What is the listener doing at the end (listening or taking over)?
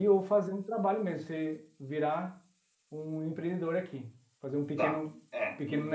taking over